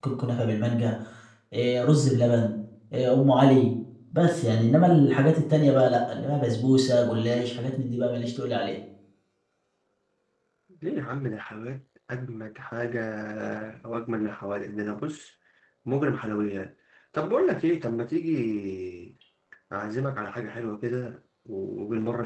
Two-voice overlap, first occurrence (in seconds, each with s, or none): none